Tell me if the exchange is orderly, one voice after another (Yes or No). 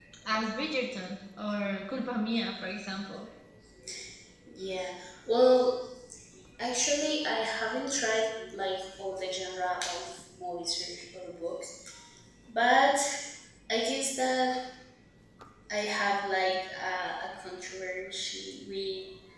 Yes